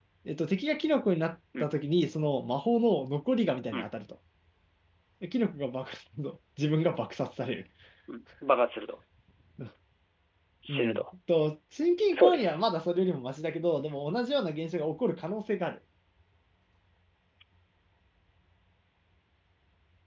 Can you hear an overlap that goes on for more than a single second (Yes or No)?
No